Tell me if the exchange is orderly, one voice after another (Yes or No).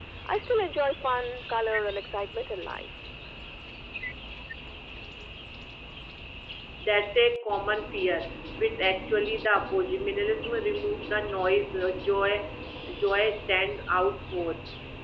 Yes